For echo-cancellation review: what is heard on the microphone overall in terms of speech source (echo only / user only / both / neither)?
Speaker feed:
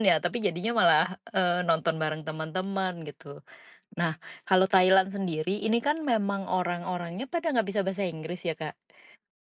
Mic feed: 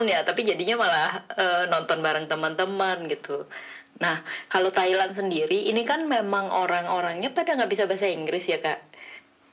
echo only